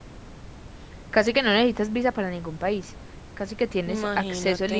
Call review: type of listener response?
listening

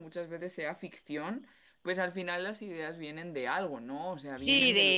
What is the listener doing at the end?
taking over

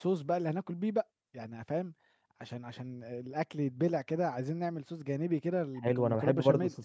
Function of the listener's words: taking over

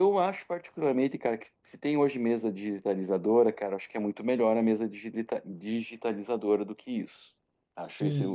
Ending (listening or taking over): taking over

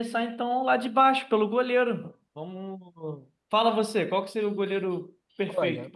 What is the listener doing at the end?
taking over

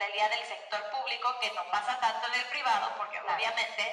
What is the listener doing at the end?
listening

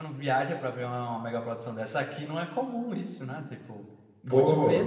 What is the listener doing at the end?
taking over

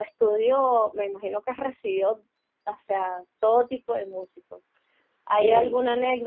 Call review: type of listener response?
listening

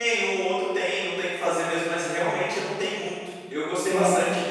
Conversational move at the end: listening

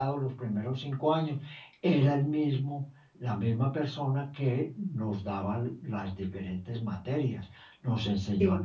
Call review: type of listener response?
listening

